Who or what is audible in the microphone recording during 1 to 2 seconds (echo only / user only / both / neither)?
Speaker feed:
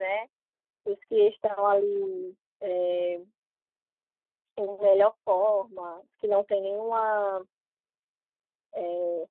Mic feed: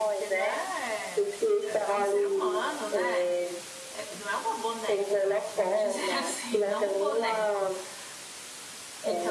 both